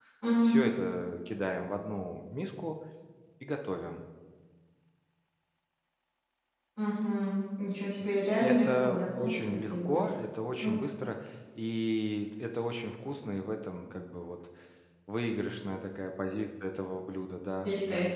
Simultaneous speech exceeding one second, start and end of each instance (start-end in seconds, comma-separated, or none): 8.4-10.2